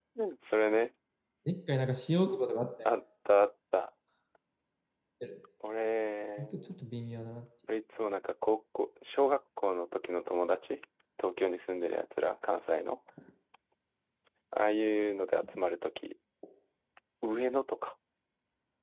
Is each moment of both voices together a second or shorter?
Yes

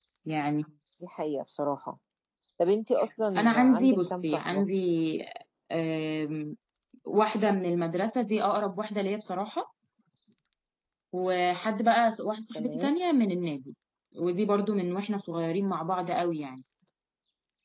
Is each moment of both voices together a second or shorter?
No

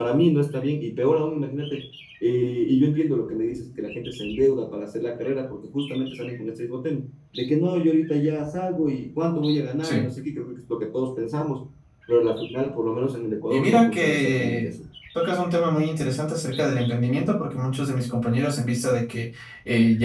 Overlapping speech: Yes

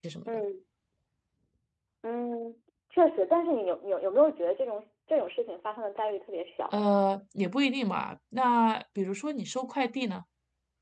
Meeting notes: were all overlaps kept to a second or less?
Yes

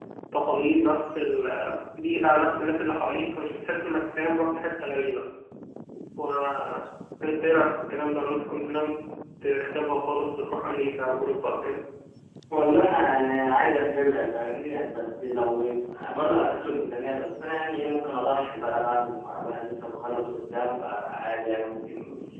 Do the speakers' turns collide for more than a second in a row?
No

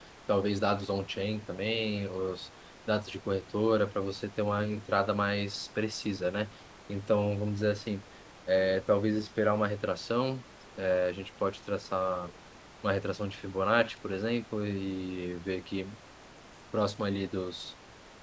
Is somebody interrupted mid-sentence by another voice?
No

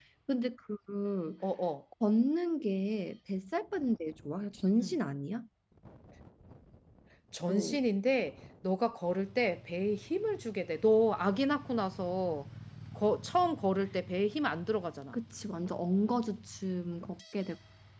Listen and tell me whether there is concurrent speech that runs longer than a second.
No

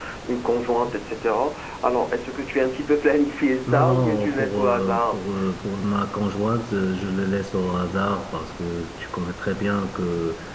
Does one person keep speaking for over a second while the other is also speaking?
Yes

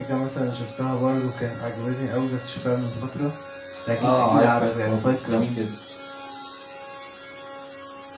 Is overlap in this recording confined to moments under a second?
No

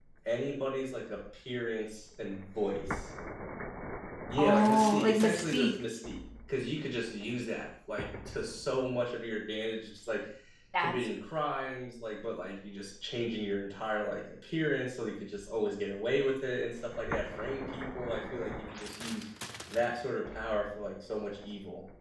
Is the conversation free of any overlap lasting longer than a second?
No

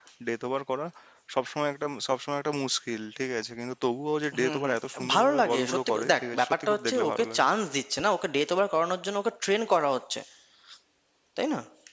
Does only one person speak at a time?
No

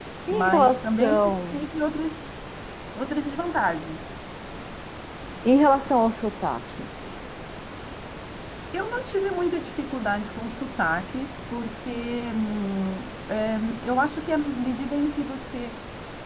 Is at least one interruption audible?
Yes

